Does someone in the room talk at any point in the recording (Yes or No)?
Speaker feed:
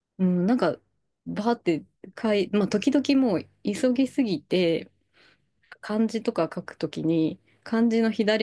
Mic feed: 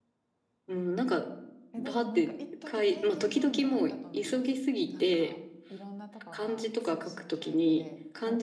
Yes